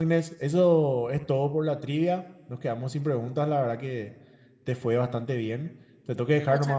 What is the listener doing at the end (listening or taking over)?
listening